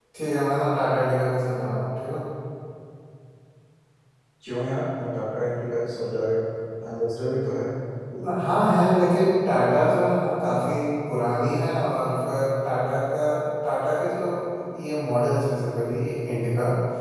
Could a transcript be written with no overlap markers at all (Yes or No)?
Yes